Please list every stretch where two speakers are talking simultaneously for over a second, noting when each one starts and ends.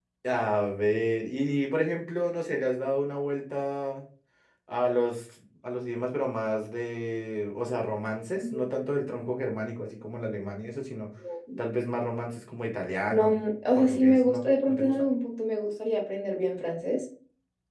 13.1-15.0

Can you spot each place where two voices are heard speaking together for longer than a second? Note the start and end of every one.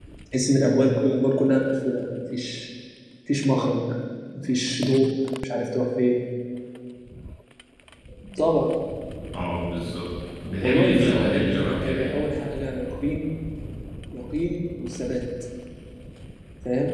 10.6-12.2

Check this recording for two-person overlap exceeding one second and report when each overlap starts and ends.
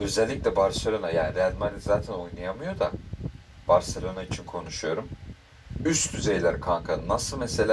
none

